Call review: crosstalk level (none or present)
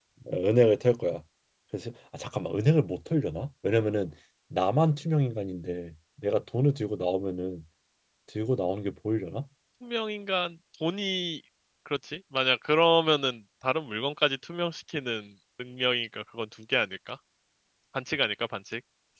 none